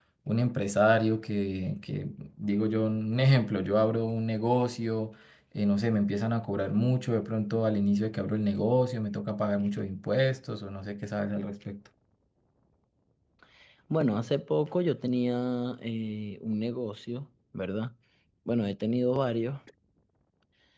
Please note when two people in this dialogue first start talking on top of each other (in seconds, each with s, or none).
none